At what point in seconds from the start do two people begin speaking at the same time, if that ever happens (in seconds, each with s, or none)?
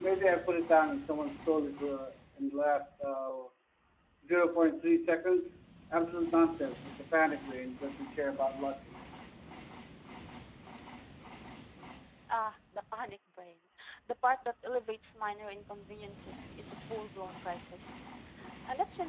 none